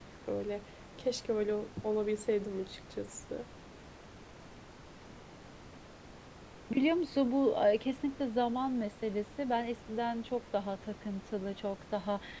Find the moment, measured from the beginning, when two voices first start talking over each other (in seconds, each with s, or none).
none